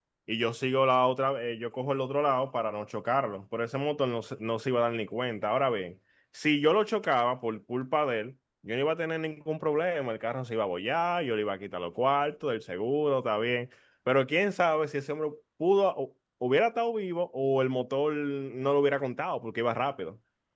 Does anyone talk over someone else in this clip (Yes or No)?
No